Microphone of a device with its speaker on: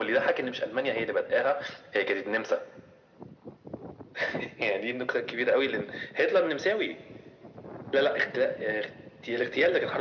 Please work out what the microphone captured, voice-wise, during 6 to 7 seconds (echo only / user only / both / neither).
echo only